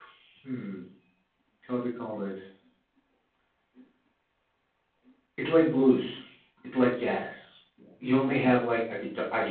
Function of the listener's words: listening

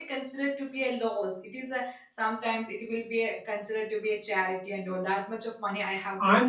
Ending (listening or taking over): taking over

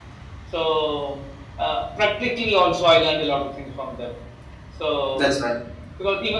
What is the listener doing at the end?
listening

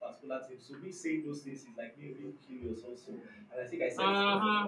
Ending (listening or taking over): listening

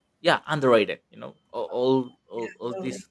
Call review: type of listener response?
listening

